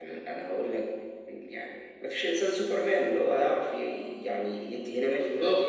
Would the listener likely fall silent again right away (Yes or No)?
No